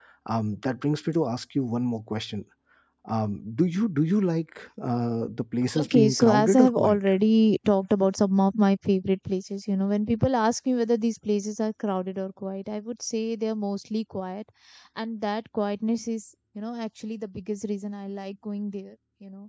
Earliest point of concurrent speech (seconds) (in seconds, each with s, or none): 5.8 s